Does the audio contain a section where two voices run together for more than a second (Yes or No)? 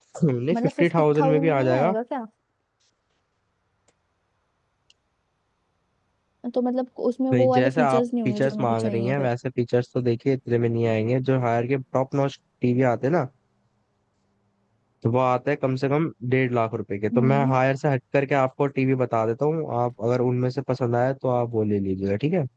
Yes